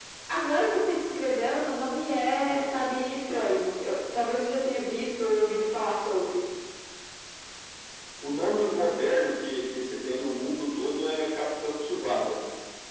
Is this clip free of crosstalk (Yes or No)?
Yes